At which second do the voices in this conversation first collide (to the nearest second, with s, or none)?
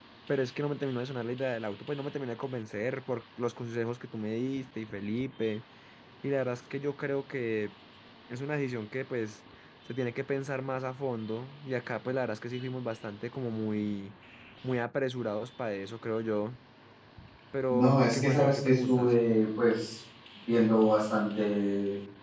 18 s